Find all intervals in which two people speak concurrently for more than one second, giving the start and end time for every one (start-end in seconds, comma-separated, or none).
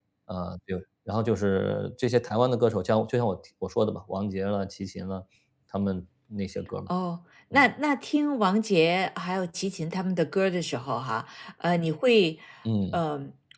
none